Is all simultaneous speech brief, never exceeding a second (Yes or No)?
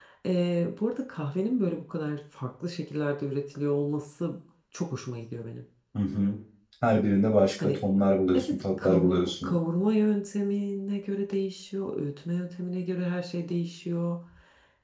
No